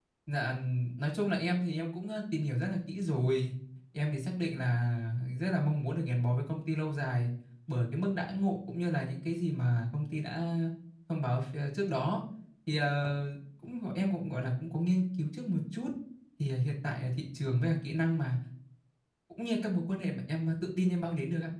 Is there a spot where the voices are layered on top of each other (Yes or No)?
No